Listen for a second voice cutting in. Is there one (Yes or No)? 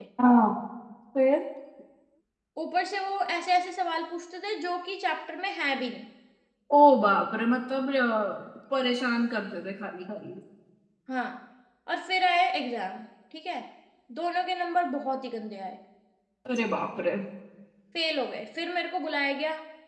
No